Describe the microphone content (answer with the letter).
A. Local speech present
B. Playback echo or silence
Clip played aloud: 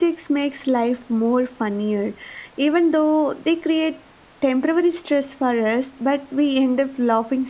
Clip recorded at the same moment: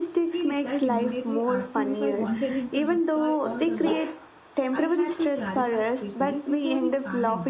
A